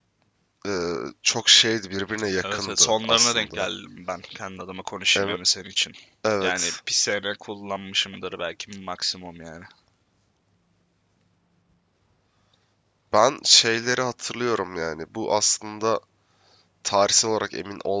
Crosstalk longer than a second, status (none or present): present